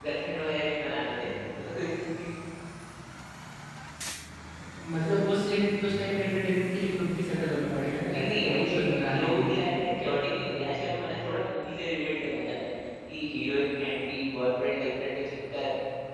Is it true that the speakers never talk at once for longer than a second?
No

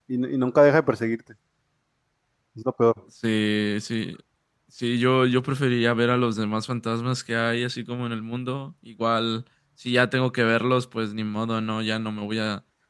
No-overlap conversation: Yes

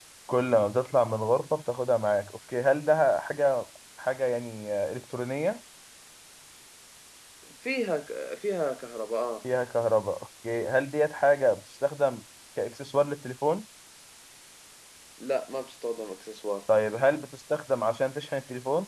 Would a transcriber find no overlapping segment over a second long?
Yes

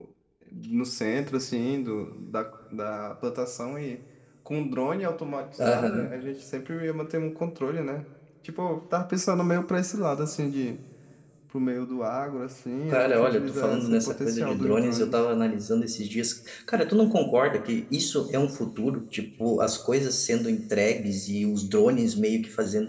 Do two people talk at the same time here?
Yes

